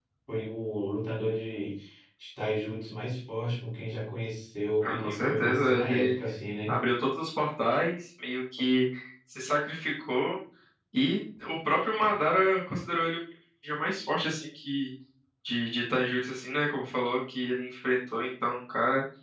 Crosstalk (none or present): present